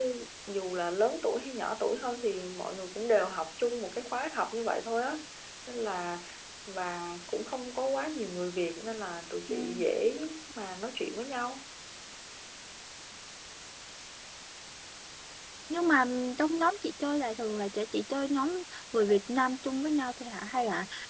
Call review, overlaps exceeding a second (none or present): none